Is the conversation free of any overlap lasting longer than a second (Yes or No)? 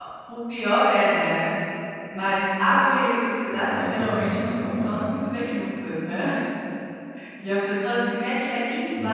No